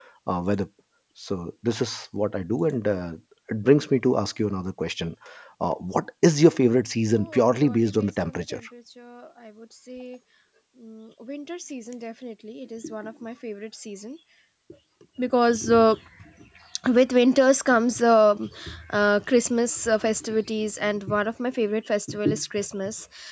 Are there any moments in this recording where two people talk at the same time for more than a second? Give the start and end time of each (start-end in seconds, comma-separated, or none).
7.1-8.6